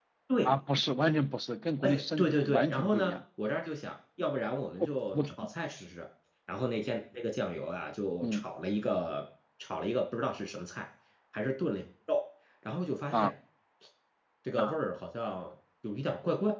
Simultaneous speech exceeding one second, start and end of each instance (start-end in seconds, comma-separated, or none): 1.8-3.1